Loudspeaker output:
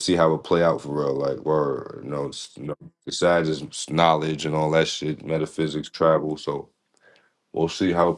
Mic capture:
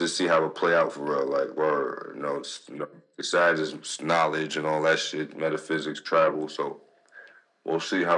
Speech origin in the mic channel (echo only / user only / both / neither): echo only